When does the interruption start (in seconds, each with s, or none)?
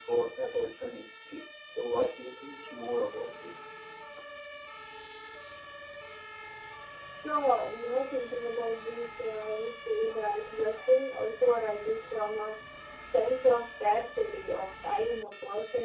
none